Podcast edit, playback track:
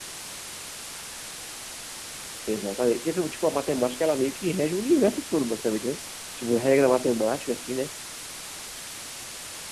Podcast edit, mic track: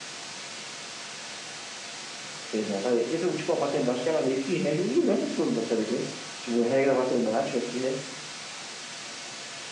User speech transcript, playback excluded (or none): none